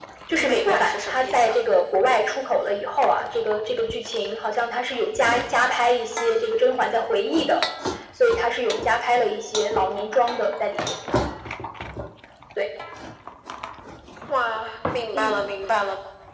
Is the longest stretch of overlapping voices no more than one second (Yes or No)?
No